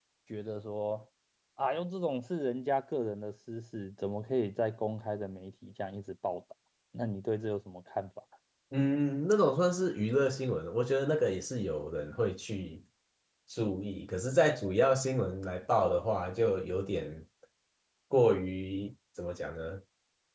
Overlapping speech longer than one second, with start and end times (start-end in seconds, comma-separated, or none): none